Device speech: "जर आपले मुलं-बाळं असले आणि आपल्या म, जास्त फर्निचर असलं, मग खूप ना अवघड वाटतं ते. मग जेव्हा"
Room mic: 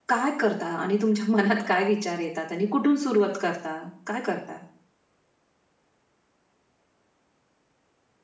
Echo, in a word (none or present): none